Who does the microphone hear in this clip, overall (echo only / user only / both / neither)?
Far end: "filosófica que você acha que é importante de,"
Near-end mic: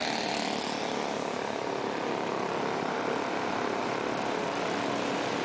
neither